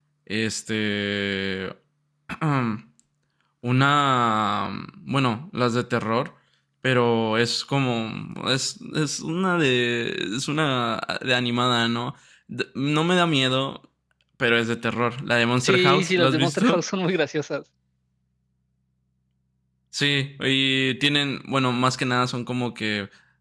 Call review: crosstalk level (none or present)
present